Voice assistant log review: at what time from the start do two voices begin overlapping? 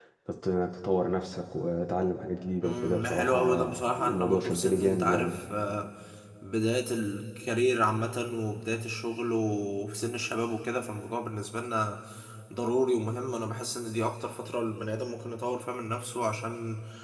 2.6 s

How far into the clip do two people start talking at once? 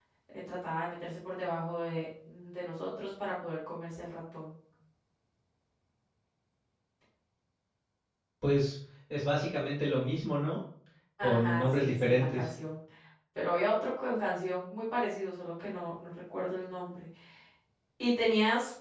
11.2 s

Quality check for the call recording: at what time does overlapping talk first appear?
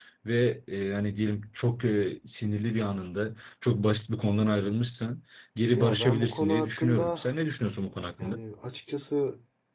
5.7 s

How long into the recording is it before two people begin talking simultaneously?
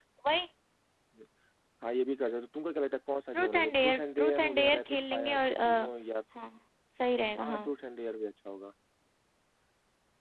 3.3 s

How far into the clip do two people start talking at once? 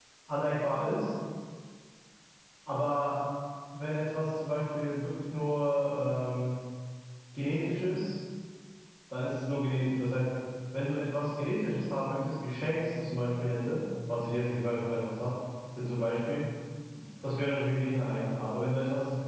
none

